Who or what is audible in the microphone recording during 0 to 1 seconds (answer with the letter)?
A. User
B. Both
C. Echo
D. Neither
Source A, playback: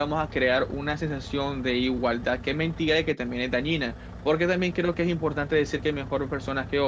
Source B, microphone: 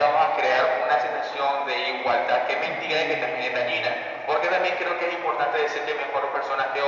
C